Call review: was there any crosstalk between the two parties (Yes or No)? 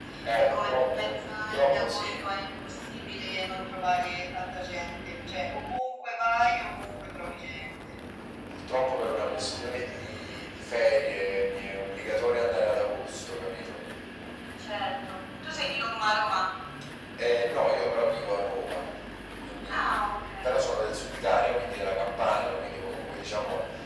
Yes